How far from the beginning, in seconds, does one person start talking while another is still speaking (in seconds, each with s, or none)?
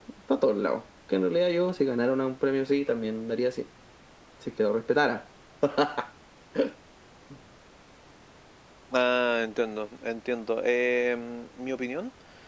none